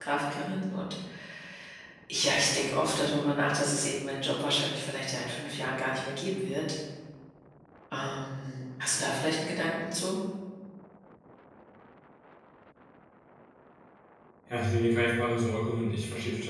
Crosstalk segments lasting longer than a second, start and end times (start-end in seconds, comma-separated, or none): none